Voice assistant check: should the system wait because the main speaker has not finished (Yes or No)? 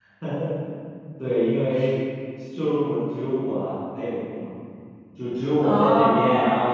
Yes